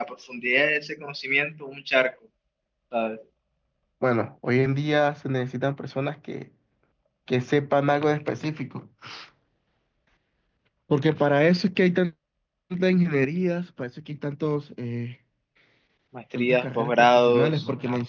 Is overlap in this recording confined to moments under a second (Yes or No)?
No